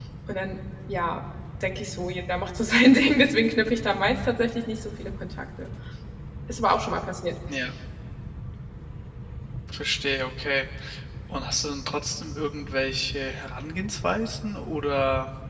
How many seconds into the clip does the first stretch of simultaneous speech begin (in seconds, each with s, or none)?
none